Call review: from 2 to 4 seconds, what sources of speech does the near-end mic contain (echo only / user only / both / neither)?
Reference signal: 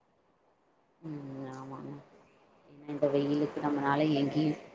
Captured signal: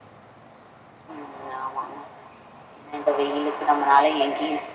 echo only